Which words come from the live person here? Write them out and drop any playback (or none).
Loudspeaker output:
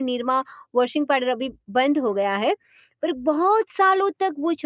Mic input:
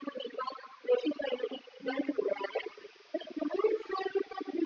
हुँ,